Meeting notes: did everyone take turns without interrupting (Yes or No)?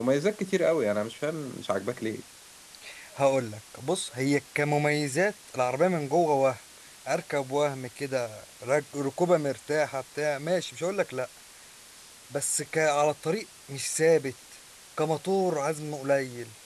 Yes